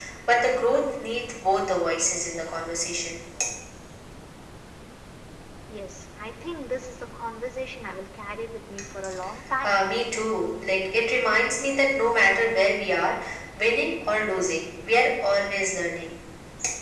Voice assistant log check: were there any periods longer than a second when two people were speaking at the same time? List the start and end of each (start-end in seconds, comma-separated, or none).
none